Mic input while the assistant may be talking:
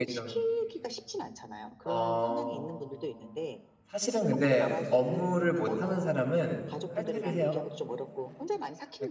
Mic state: both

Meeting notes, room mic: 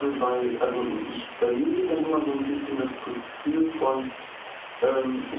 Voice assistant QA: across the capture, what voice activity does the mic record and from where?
echo only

